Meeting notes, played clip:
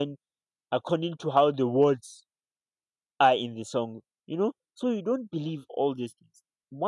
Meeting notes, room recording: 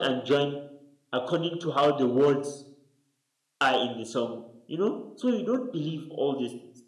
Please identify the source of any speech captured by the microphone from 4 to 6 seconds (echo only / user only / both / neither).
echo only